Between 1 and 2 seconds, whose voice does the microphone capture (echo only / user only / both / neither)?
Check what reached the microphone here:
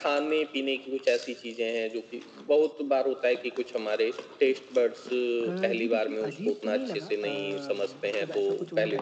echo only